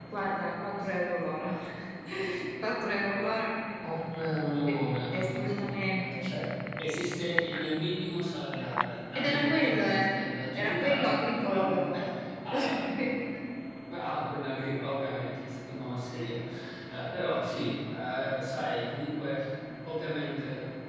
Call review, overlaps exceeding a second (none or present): present